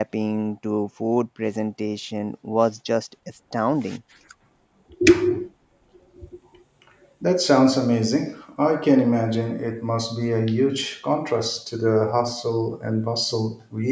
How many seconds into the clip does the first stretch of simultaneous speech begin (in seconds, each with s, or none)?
none